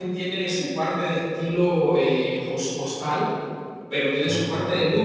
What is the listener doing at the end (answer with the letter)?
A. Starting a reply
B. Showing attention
B